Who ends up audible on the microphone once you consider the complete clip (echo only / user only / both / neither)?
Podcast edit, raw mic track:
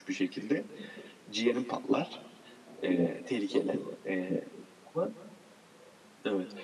echo only